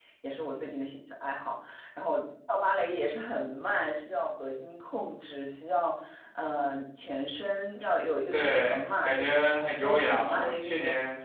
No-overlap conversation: No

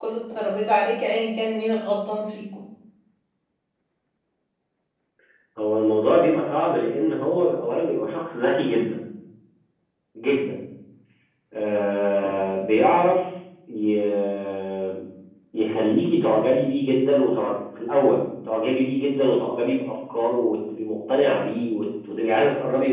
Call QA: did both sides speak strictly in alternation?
Yes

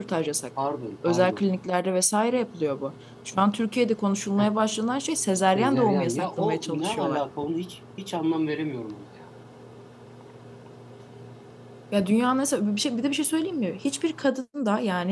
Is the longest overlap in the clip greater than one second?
Yes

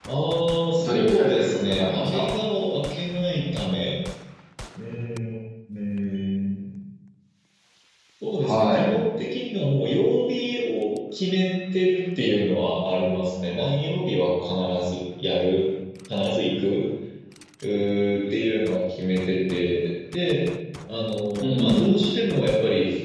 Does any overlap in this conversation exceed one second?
Yes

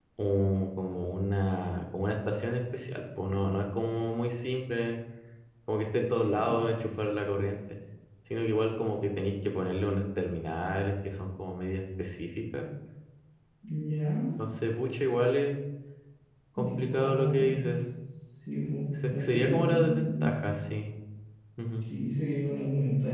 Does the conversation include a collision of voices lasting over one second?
Yes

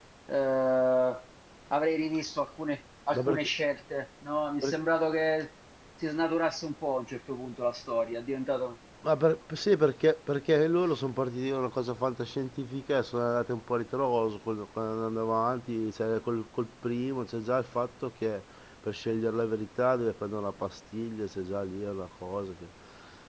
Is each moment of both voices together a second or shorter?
Yes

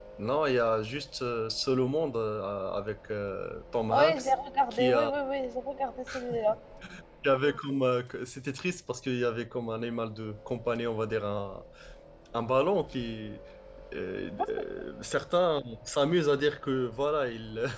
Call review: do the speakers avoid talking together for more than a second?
Yes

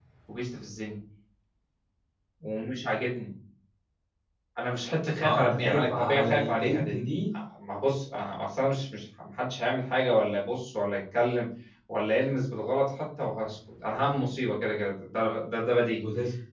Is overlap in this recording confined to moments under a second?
No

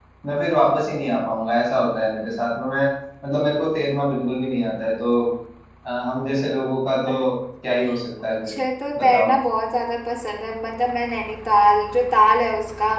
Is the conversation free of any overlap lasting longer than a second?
Yes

